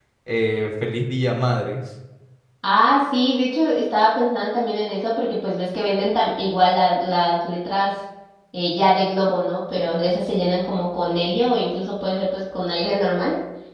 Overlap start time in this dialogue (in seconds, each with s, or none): none